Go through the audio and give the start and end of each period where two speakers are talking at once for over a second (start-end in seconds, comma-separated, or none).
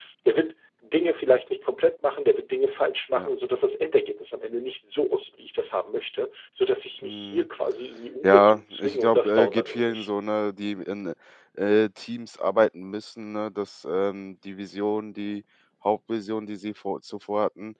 8.2-10.1